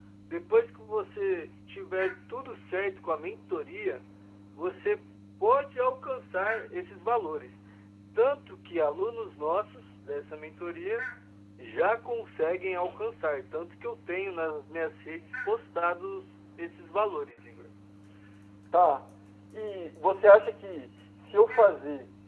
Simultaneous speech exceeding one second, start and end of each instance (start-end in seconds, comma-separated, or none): none